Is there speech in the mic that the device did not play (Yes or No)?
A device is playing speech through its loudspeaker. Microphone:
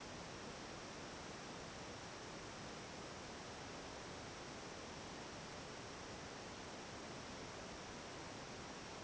No